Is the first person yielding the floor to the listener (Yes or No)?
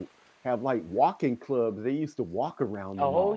Yes